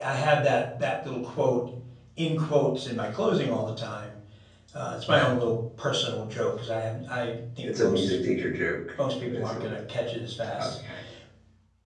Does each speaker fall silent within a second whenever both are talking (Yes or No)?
Yes